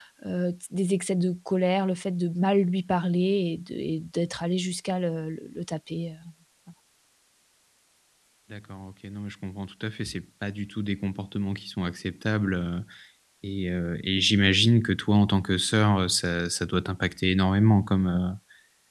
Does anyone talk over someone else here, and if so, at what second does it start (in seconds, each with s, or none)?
none